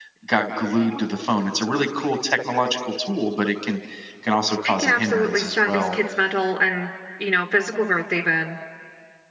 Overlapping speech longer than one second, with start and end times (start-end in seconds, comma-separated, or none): 4.7-6.0